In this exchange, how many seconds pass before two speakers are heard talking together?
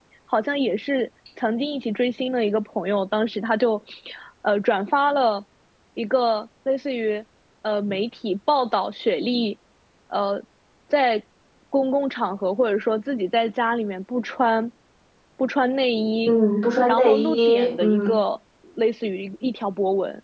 17 s

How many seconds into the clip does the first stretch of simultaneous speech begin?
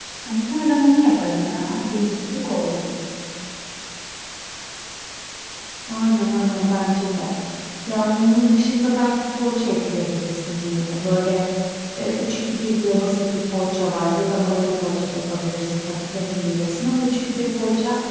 none

